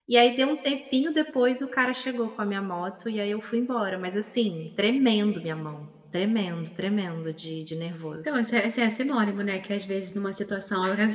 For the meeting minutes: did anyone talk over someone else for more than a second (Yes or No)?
No